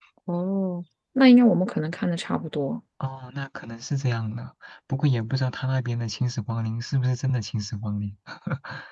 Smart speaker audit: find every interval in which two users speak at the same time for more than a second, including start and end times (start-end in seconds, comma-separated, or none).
none